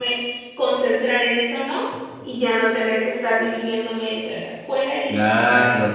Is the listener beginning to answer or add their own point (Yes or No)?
Yes